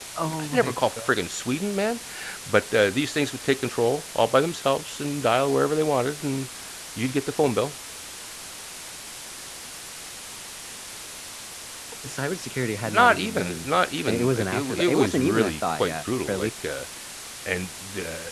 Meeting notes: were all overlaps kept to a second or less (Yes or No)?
No